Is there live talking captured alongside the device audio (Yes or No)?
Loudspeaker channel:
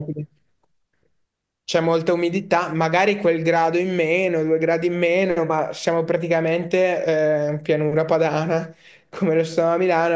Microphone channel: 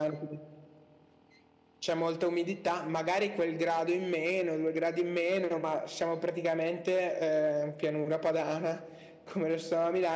No